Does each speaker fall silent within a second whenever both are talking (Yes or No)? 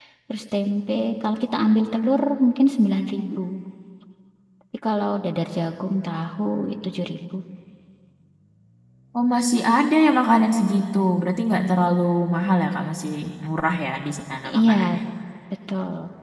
Yes